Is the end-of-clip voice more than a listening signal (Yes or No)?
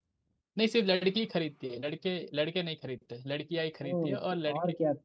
Yes